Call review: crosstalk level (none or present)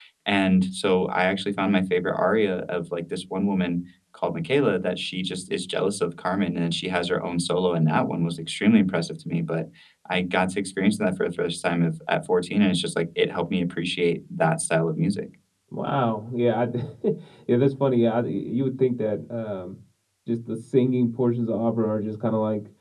none